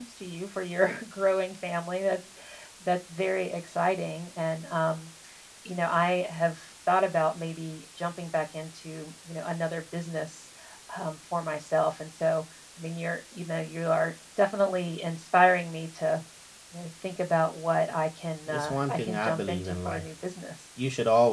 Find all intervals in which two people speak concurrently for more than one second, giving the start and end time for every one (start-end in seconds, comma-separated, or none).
18.5-20.0